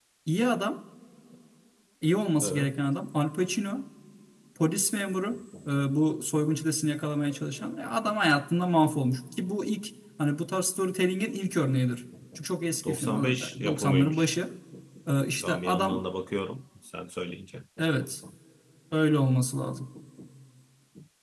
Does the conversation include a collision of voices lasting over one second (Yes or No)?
Yes